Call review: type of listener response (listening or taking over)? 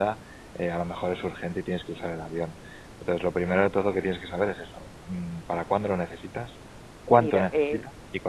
taking over